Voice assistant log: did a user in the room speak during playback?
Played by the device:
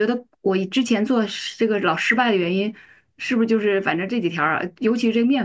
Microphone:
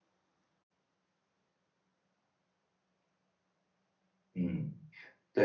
Yes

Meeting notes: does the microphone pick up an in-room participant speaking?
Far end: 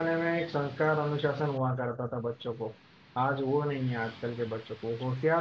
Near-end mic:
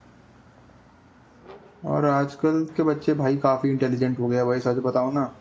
Yes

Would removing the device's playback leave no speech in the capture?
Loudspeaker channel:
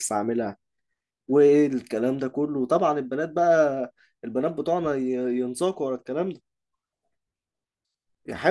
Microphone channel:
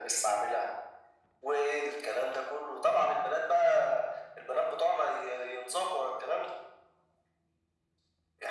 Yes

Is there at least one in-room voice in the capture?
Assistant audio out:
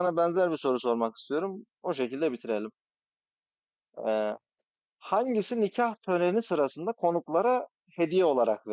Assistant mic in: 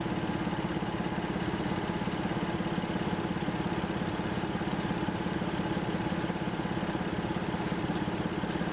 No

